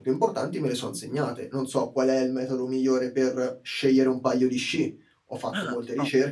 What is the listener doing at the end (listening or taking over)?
listening